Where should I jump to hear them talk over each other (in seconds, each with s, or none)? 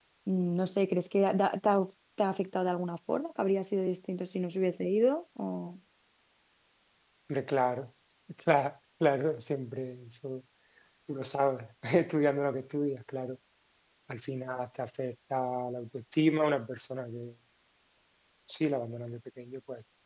none